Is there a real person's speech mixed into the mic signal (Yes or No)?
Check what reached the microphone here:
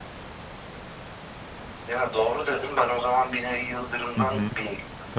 Yes